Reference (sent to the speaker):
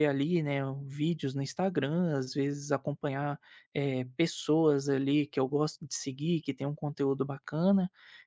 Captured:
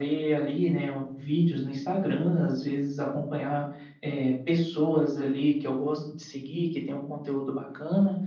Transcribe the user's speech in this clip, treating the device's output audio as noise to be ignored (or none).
none